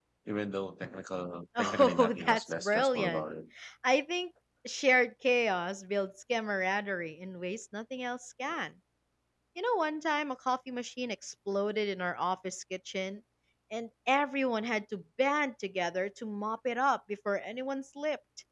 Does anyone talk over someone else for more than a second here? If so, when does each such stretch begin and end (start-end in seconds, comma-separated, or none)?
1.6-3.3